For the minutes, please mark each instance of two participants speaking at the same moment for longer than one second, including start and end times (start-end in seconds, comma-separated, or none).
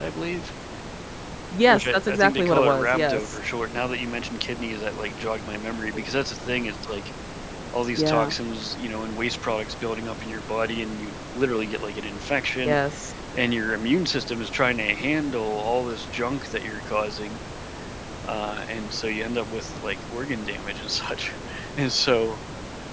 1.7-3.4